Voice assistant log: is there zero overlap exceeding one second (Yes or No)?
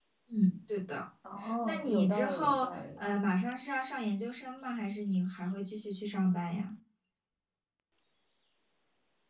No